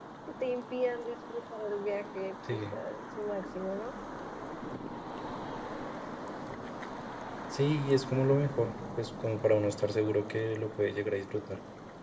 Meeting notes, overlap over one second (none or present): none